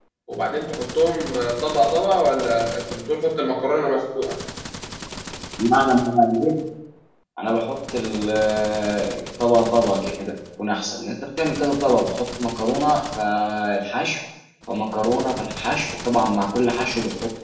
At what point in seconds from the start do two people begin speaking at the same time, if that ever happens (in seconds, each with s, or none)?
none